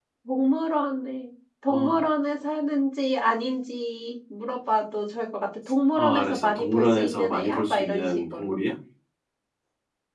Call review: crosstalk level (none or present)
present